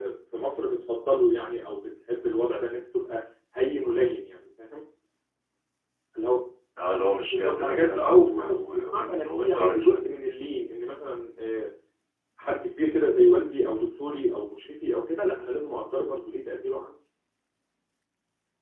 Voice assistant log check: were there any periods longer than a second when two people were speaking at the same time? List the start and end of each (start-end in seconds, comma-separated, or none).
7.3-10.0